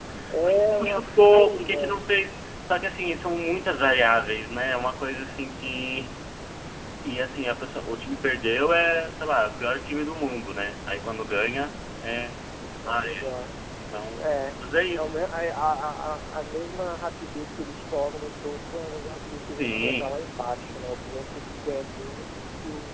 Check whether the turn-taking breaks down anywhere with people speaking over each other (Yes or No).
Yes